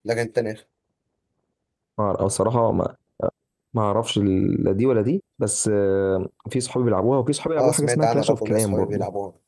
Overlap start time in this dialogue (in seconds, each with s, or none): 7.6 s